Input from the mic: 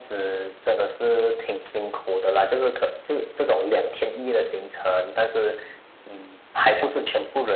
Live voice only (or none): none